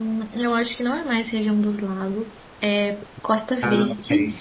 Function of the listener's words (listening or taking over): listening